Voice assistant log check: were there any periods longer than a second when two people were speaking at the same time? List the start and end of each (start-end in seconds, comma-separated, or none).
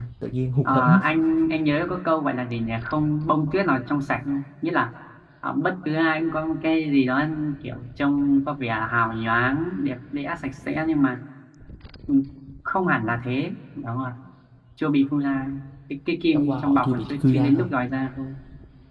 16.3-17.7